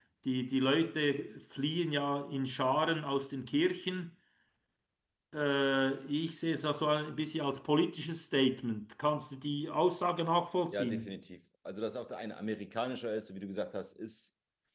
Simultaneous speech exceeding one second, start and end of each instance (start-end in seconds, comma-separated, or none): none